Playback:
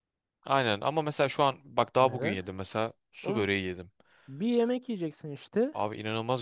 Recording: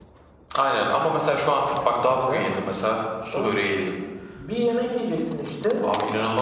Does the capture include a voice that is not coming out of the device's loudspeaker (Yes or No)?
No